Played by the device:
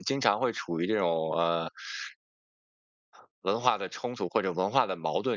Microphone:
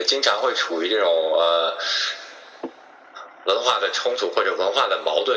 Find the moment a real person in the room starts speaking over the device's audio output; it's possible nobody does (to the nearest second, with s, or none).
none